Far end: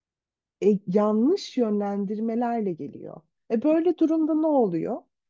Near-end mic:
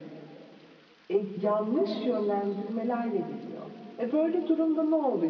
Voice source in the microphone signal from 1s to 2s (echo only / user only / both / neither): both